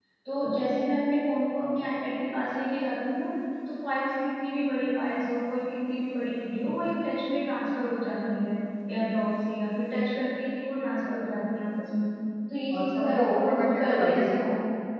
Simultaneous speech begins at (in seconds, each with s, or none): 12.8 s